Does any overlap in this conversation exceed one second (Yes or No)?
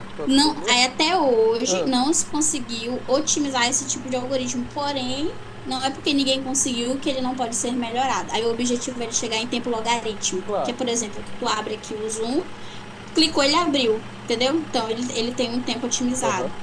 No